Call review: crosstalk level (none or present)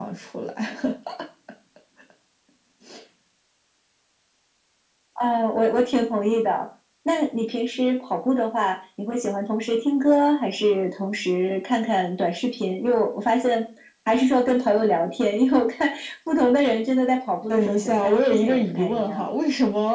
present